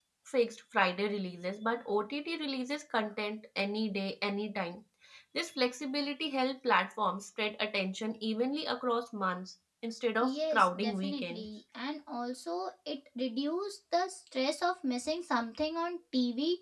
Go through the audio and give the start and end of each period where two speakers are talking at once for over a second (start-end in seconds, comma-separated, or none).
10.2-11.4